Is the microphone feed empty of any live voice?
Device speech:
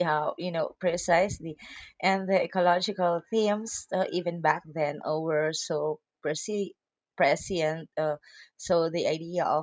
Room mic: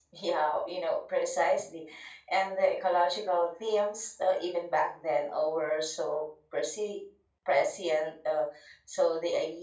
Yes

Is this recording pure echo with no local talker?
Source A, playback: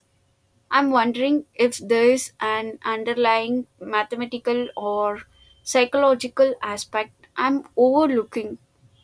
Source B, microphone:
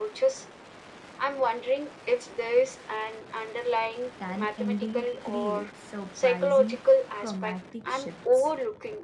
No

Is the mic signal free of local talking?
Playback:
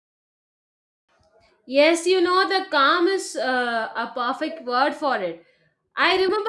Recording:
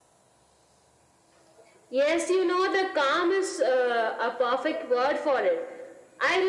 Yes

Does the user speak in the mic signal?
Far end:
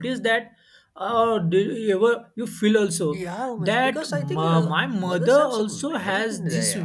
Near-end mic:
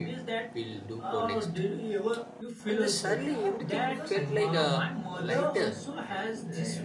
Yes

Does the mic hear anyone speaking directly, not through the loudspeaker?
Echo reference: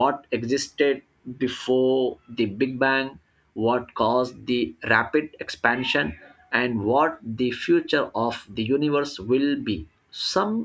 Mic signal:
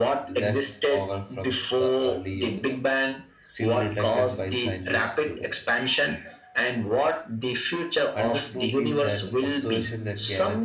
Yes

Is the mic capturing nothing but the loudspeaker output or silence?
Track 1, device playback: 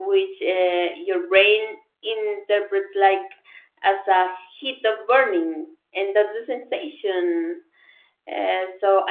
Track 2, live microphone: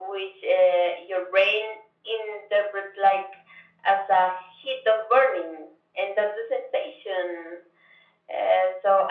Yes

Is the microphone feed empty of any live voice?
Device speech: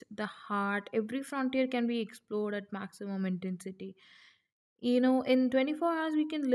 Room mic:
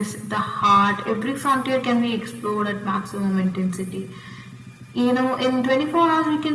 Yes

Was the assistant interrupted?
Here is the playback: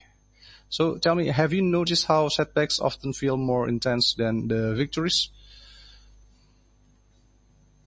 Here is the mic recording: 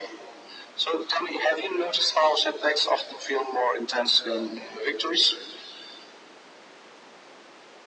No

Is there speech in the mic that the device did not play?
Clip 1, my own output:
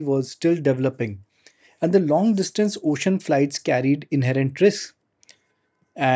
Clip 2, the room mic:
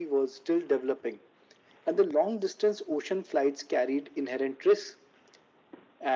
No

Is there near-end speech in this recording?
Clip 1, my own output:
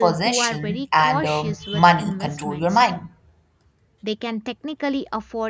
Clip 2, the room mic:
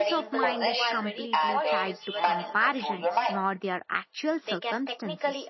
Yes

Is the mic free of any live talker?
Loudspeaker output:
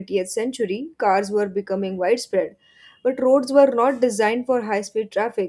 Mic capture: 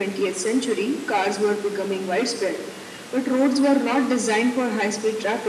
Yes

